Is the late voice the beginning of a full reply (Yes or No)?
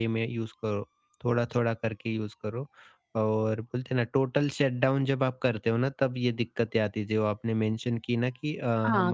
Yes